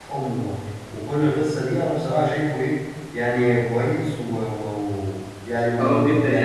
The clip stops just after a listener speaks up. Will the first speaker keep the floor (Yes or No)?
No